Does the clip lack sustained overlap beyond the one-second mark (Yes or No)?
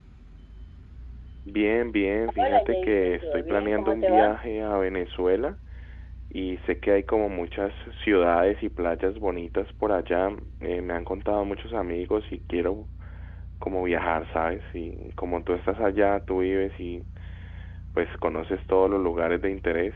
No